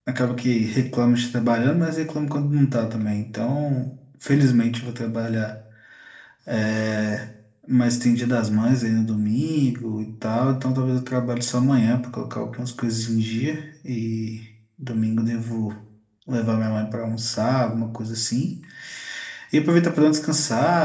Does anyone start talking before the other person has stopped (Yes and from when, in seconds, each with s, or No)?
No